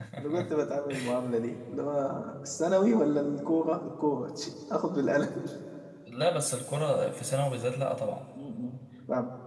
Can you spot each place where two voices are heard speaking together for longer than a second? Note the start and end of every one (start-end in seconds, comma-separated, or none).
none